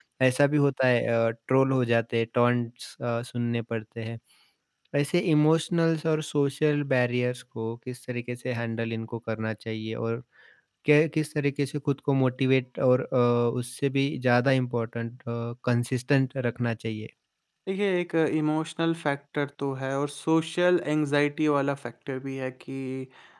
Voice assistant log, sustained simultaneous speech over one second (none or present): none